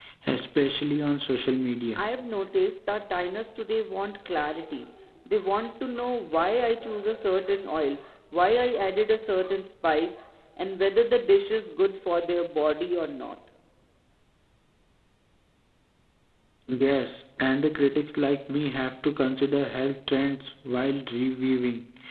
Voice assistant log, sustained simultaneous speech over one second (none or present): none